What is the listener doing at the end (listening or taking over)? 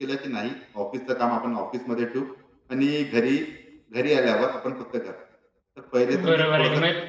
taking over